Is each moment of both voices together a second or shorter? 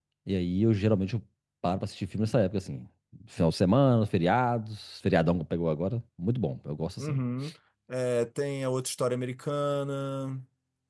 Yes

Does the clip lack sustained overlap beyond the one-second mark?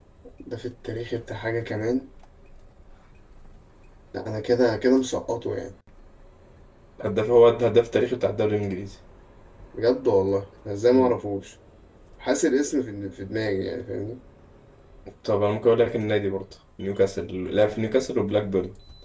Yes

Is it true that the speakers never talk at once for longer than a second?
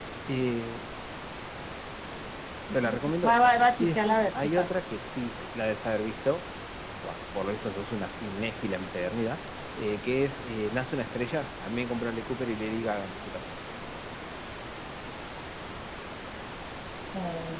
No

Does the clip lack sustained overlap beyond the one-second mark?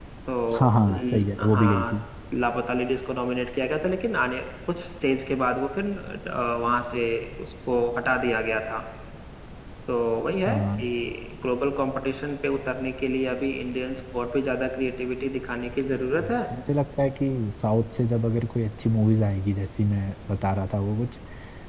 No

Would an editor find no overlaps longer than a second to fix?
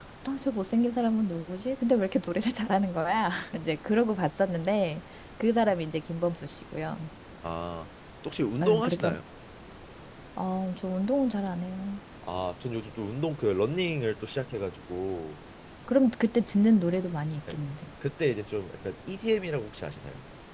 Yes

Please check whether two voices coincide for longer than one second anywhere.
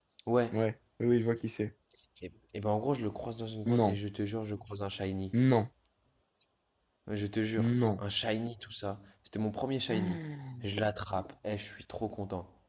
No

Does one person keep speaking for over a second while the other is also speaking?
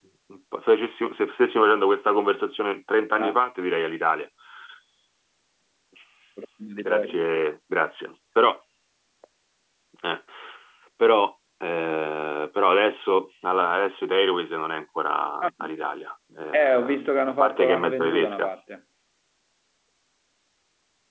Yes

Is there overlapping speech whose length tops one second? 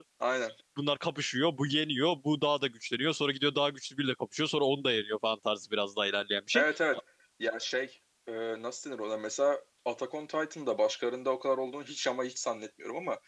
No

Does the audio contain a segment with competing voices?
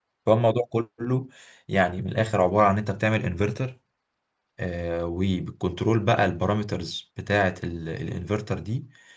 No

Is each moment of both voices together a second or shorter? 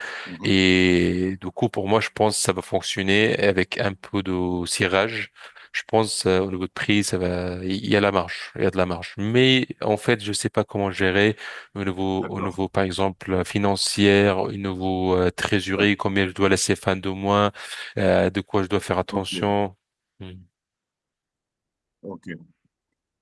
Yes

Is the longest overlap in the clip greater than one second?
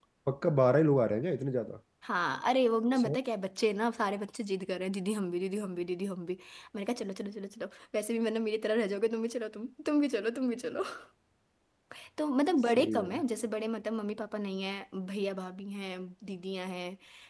No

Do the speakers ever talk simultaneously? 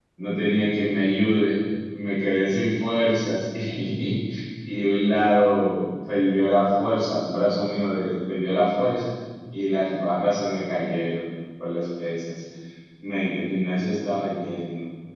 No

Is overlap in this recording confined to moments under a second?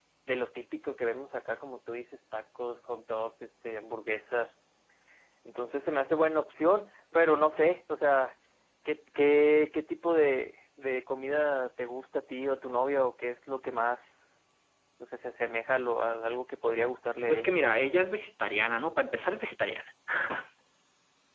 Yes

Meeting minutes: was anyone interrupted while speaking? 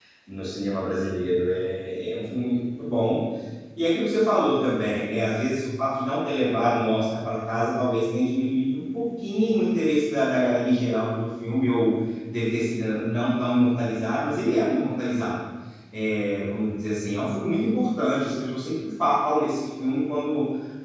No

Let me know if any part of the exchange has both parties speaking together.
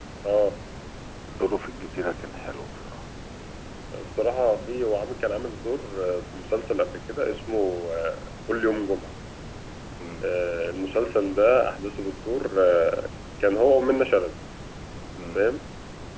No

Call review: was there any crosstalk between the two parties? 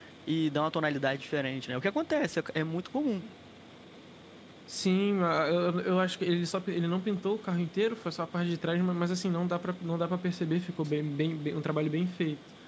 No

